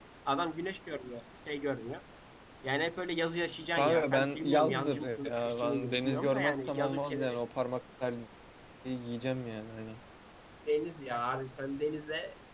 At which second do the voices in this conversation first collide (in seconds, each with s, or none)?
3.7 s